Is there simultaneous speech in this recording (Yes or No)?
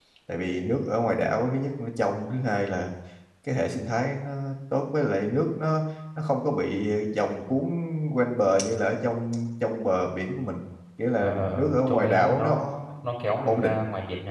Yes